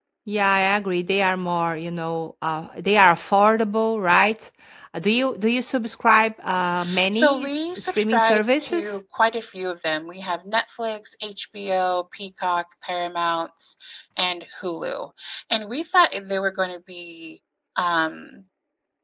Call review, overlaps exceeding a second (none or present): present